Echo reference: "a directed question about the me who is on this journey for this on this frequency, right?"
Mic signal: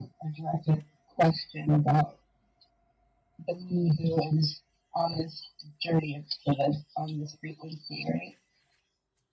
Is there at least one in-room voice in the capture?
No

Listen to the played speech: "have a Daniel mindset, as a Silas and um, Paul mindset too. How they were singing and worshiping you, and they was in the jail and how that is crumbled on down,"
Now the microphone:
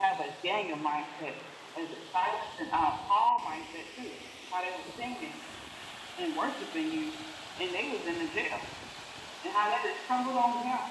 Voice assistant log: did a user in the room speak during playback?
No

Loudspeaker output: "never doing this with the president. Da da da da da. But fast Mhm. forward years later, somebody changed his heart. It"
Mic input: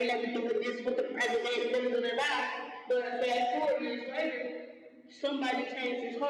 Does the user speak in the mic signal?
No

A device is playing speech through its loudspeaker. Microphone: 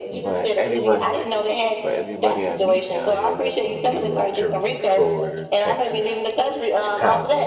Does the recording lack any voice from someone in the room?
No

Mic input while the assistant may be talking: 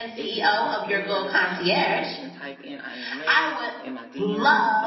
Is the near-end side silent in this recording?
No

